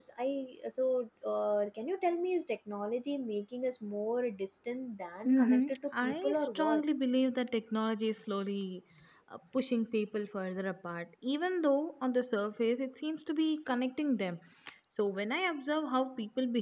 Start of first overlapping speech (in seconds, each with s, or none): 5.2 s